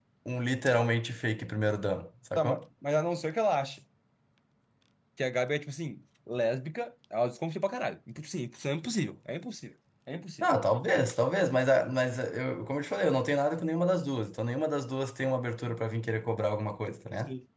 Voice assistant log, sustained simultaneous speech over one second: none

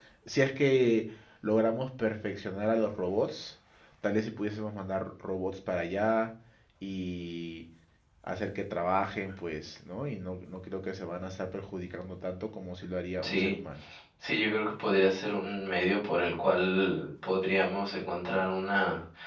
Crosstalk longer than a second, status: none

